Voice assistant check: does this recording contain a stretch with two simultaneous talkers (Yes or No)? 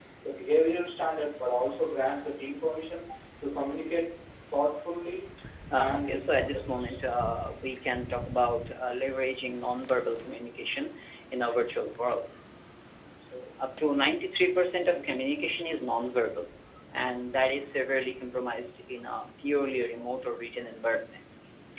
Yes